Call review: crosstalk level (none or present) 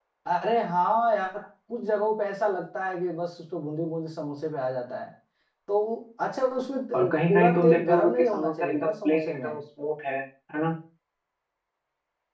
present